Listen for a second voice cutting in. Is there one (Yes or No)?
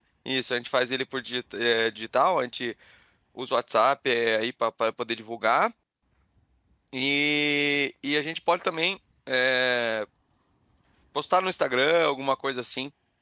No